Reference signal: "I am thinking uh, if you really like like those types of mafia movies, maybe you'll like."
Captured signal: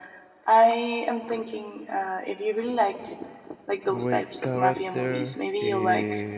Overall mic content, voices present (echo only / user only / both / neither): both